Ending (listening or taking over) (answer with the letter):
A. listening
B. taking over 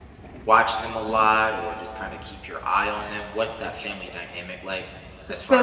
B